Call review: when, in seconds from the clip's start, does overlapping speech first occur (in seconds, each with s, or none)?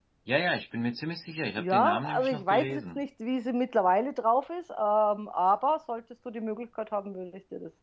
1.6 s